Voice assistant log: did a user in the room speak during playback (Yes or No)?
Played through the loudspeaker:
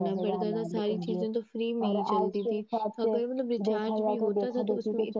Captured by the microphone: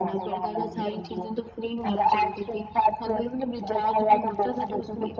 No